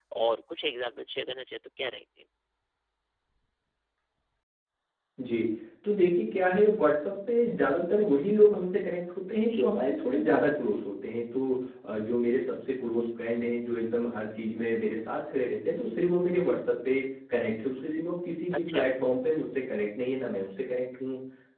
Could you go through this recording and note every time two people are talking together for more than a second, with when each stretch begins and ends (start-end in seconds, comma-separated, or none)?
none